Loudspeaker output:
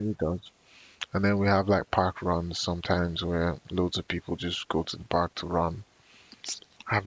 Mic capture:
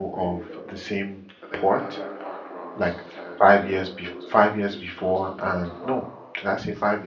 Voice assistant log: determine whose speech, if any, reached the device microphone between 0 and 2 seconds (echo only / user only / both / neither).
both